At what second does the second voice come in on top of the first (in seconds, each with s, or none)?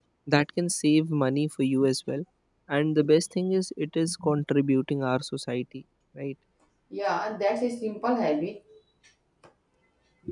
none